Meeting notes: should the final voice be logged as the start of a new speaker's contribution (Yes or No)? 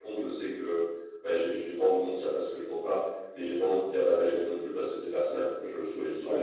No